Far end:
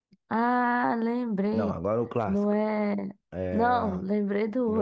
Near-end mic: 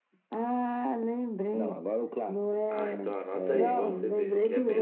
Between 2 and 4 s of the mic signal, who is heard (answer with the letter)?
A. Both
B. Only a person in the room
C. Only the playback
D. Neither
A